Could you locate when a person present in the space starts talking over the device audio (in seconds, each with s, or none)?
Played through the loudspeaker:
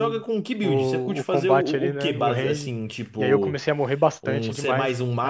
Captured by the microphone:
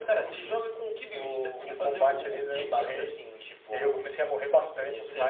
none